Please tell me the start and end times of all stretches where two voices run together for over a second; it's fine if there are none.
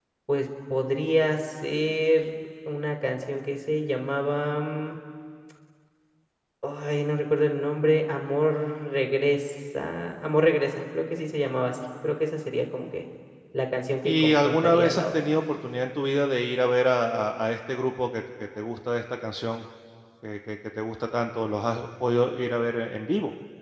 14.0-15.3

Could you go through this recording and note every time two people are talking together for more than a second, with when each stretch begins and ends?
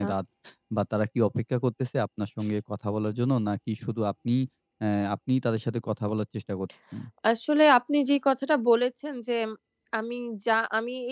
none

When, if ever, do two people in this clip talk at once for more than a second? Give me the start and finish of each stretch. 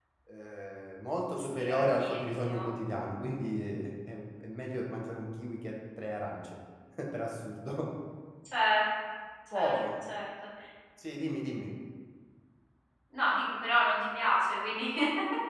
1.4-2.6

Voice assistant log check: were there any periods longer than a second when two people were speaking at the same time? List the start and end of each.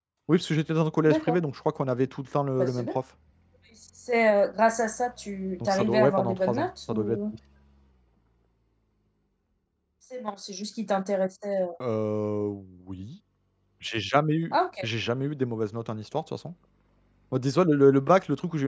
5.7-7.2

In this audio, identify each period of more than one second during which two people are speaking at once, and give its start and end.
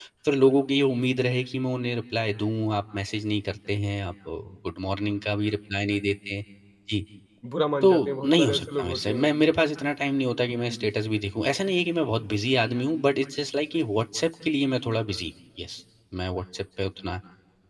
7.8-9.3

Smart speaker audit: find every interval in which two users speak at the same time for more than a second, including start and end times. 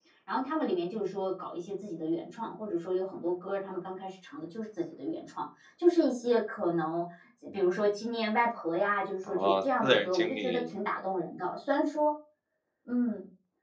9.3-10.7

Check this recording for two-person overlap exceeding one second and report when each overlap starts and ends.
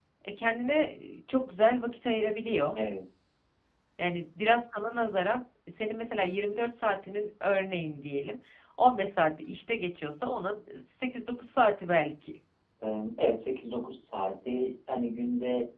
none

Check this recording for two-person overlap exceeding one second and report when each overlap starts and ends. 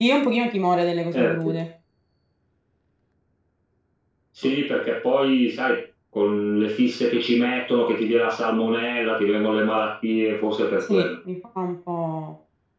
none

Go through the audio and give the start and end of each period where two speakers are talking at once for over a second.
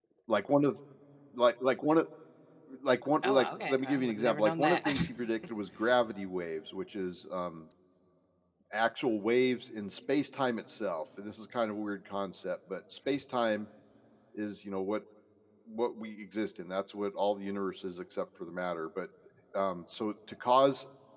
3.2-4.8

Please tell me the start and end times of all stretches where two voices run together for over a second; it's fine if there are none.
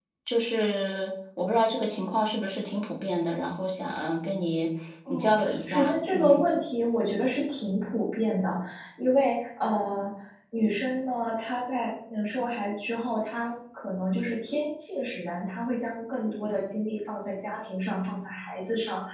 5.1-6.4

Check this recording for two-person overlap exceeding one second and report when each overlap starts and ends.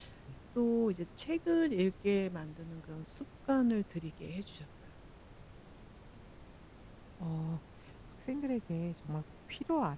none

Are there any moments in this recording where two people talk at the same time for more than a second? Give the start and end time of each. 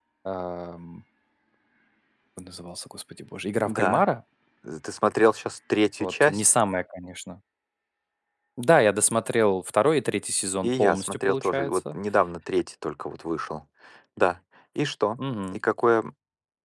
10.6-11.9

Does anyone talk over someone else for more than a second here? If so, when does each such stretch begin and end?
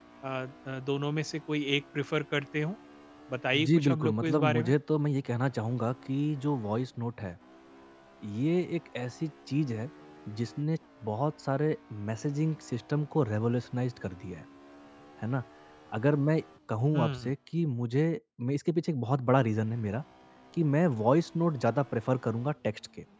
3.5-4.7

